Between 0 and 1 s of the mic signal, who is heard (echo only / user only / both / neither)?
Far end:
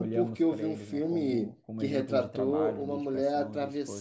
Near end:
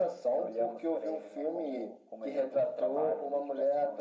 echo only